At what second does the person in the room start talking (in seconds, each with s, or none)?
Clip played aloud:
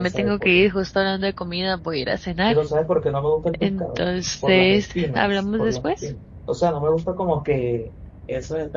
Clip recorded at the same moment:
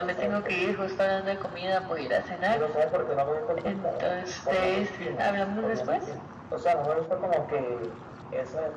none